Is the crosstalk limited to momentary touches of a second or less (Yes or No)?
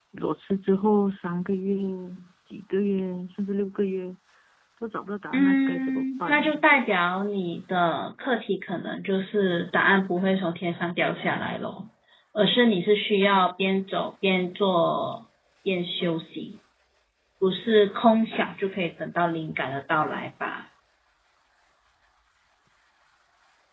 No